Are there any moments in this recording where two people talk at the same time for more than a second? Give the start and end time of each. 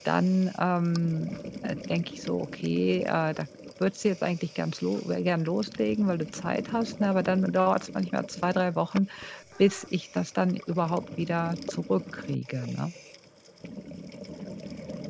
none

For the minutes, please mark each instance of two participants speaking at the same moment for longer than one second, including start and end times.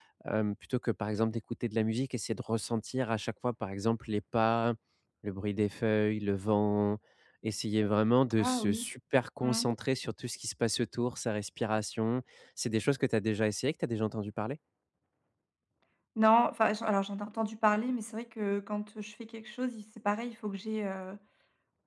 none

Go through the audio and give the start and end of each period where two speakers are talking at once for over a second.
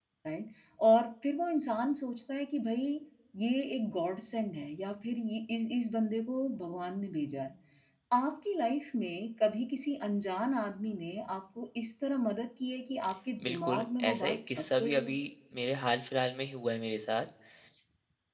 13.4-15.2

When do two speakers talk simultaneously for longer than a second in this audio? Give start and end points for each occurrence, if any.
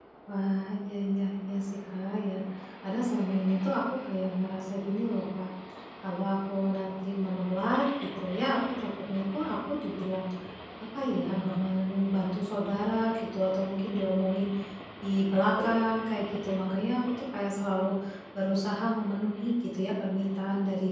none

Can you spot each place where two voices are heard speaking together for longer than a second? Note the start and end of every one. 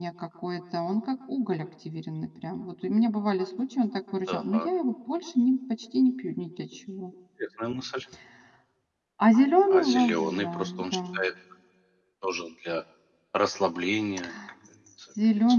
9.7-11.0

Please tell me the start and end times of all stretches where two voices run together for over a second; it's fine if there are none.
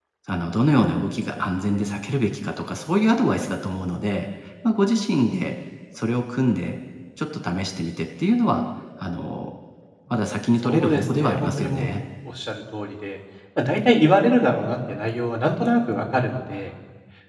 10.6-11.9

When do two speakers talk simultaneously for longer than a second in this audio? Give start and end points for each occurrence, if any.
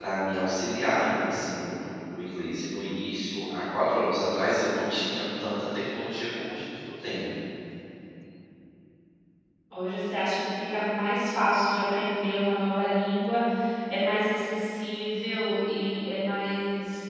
none

